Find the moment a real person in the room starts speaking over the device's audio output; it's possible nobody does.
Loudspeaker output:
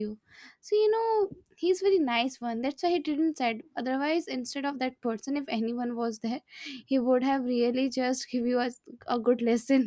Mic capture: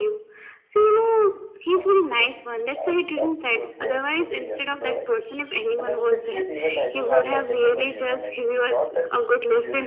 1.8 s

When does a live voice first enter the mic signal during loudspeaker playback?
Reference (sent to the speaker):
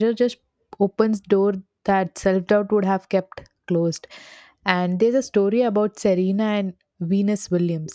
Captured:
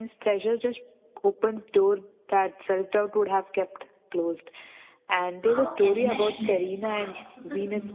5.5 s

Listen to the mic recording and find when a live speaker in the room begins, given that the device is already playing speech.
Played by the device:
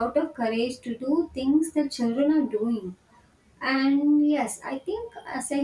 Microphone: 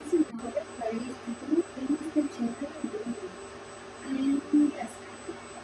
none

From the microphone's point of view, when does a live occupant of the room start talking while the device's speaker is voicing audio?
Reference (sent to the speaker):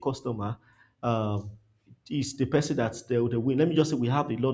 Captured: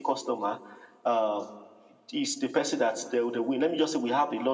none

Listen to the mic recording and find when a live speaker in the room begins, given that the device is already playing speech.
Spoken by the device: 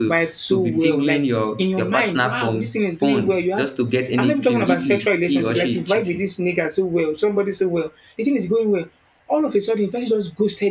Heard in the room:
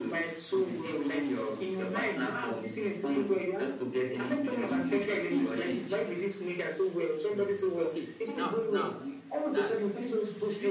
7.3 s

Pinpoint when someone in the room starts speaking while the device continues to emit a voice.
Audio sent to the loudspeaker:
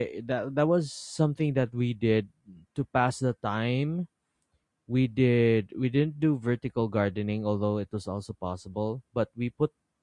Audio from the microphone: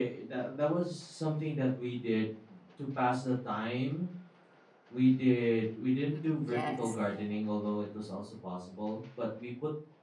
6.0 s

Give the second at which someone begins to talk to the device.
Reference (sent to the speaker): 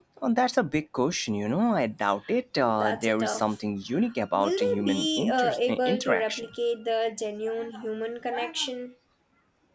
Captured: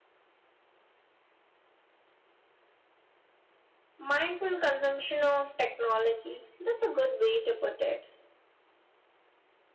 4.0 s

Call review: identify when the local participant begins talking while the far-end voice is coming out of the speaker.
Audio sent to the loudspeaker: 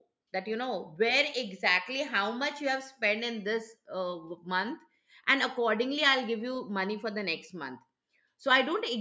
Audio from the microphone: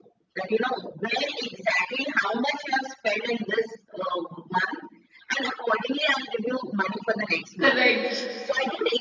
7.6 s

